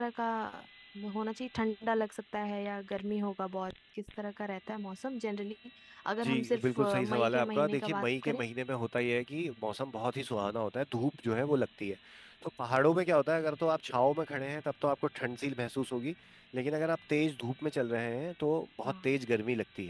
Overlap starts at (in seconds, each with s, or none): 6.2 s